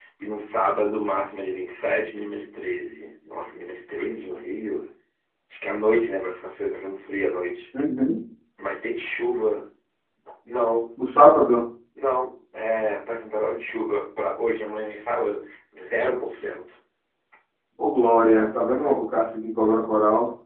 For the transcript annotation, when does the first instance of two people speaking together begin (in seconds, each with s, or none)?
none